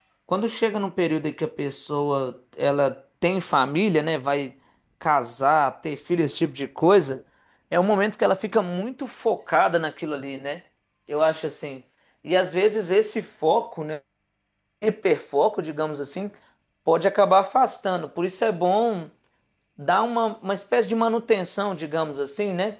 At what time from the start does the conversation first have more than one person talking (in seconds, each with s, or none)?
none